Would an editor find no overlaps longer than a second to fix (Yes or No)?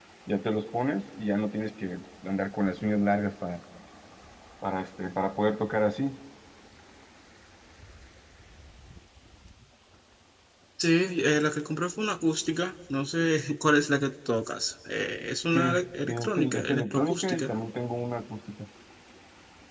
No